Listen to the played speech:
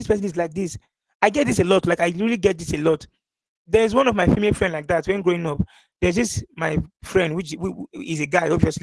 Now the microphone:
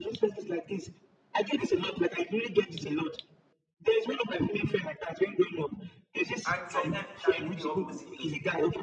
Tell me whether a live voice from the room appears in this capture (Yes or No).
Yes